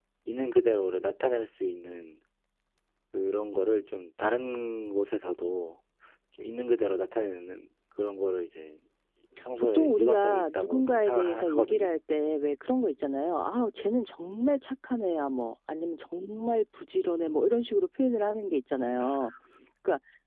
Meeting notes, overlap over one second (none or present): present